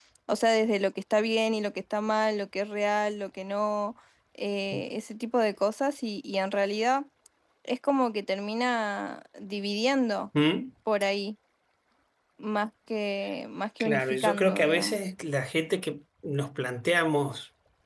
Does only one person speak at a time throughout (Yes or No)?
No